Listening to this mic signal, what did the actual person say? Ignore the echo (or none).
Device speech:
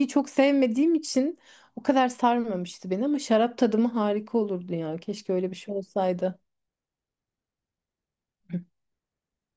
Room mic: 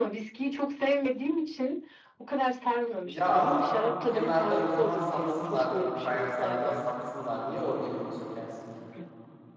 Ya ama o- kenarda o zaman satsınlar bu fayanslardan satsınlar. Niye oradakini sökersin ki?